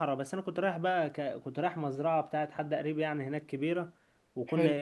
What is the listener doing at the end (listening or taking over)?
listening